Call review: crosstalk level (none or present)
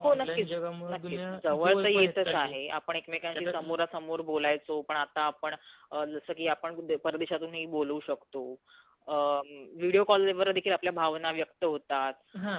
present